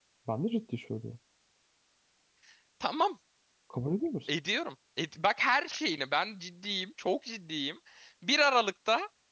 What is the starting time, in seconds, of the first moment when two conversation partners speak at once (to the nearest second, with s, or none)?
none